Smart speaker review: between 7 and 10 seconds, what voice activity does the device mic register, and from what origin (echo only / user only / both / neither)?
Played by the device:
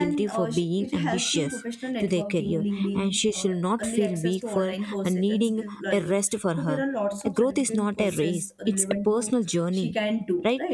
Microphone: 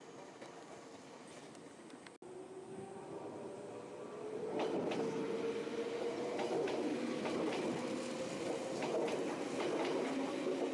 neither